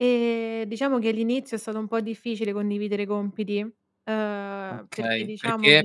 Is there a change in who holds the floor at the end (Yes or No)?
Yes